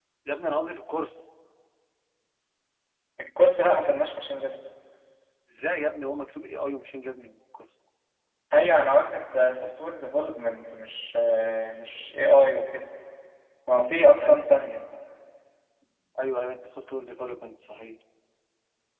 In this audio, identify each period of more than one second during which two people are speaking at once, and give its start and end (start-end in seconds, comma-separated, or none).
none